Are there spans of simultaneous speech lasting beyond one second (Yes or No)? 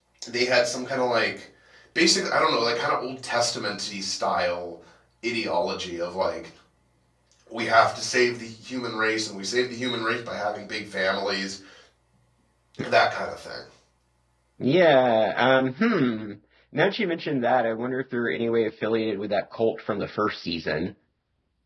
No